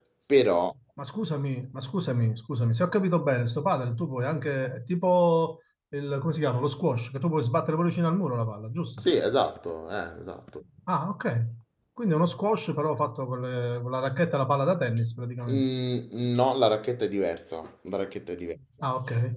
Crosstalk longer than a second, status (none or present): none